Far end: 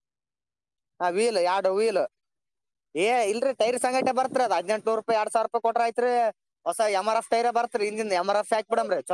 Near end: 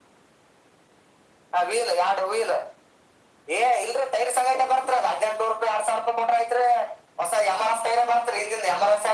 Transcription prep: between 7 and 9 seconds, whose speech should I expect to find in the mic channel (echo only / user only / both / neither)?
echo only